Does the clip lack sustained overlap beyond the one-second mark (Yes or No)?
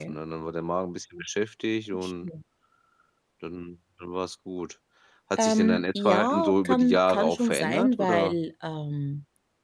No